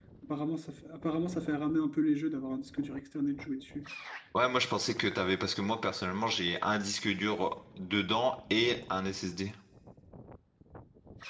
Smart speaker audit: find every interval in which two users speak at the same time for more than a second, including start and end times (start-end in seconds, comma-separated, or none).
none